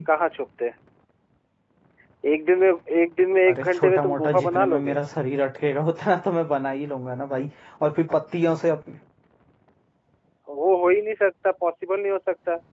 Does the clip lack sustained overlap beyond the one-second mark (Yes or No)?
No